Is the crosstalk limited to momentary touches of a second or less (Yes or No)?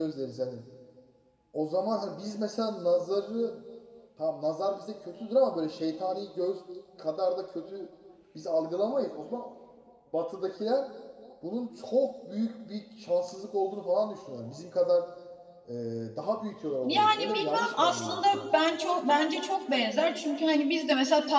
No